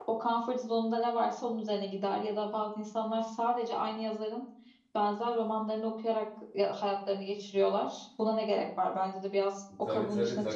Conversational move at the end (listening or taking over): taking over